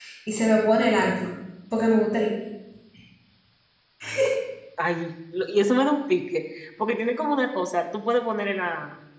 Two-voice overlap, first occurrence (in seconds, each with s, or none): none